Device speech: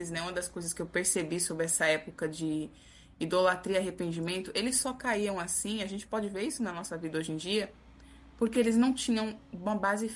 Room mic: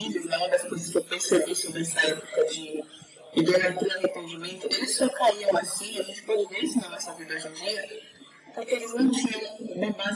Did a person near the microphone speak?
No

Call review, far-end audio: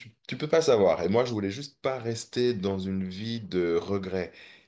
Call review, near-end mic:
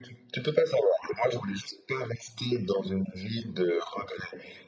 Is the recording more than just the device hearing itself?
No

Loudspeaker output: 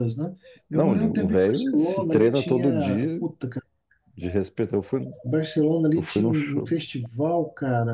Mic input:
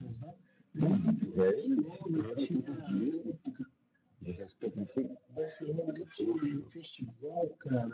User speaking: No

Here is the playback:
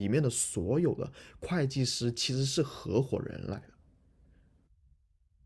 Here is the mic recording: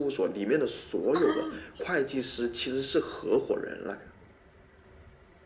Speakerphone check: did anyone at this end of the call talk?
Yes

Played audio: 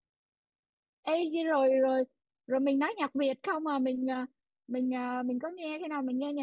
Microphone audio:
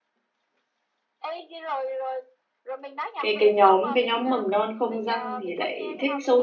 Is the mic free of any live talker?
No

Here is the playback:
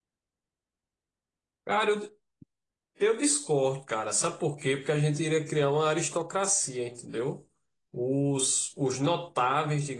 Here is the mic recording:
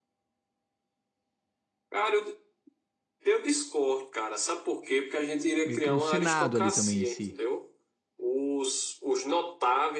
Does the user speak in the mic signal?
Yes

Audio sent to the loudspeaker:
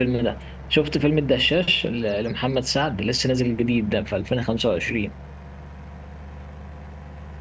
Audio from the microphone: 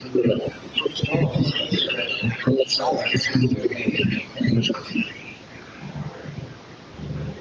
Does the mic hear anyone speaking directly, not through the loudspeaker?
Yes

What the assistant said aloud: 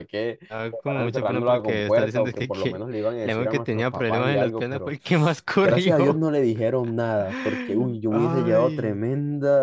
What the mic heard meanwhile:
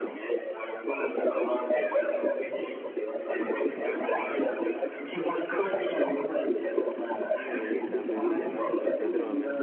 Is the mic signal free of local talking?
No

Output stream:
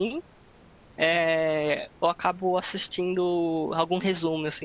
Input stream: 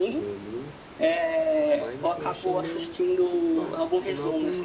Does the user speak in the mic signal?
Yes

